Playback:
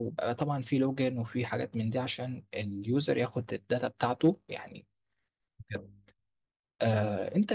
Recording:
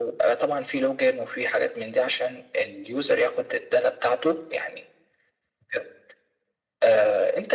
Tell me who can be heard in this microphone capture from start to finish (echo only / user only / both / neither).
echo only